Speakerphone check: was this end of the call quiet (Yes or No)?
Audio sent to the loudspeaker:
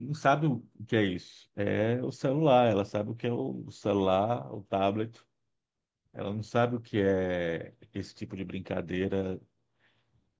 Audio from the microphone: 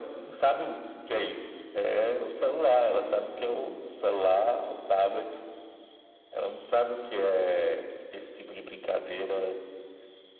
Yes